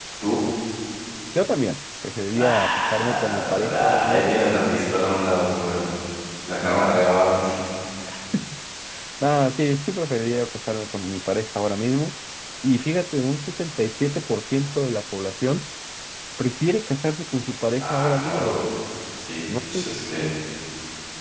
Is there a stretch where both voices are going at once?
Yes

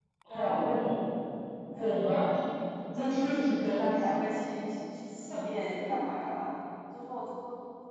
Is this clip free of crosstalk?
No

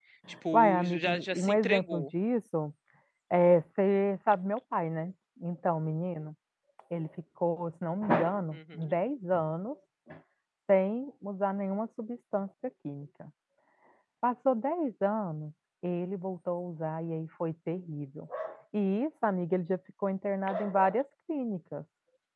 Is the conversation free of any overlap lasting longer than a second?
No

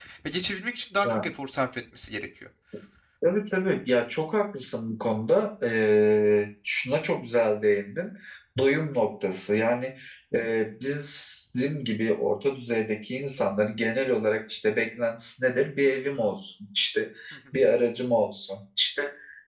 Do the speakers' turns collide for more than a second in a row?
No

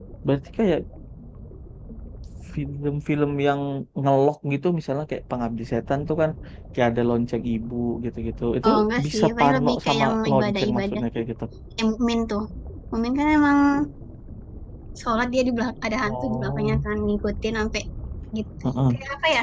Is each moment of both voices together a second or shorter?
No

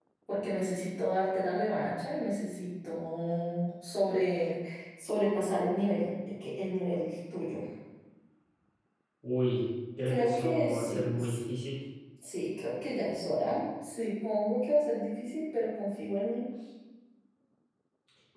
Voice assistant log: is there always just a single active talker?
No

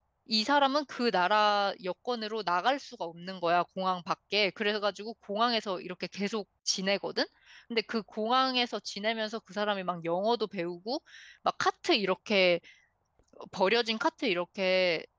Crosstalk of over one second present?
No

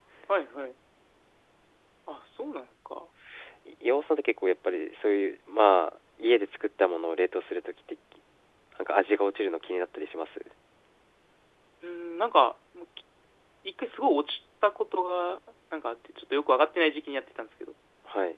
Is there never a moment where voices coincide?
Yes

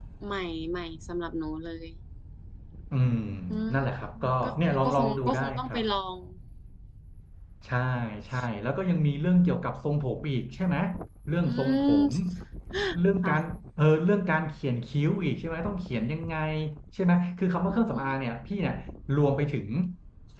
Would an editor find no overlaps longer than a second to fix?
No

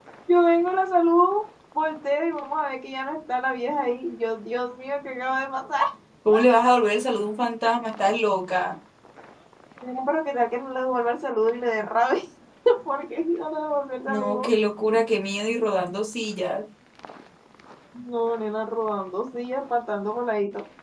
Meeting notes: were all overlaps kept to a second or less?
Yes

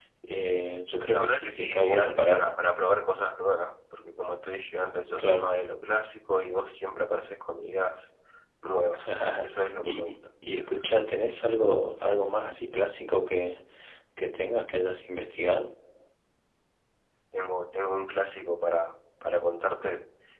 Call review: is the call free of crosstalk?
No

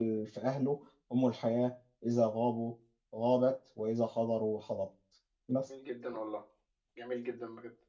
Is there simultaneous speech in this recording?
No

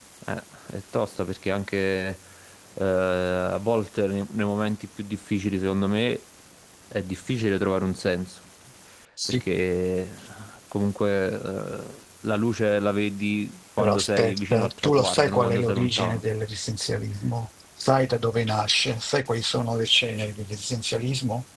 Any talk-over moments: Yes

